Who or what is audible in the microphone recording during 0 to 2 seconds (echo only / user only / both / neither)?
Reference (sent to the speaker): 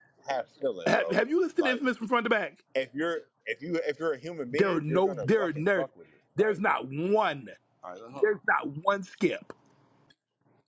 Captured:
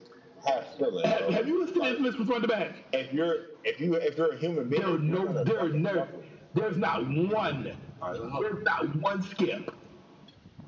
echo only